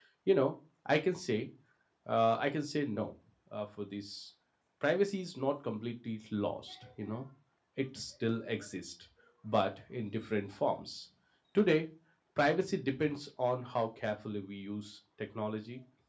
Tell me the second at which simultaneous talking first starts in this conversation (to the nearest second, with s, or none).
none